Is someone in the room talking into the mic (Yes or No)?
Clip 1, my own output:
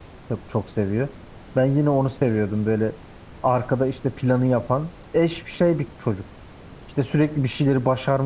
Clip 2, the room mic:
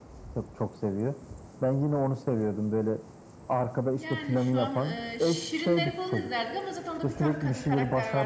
Yes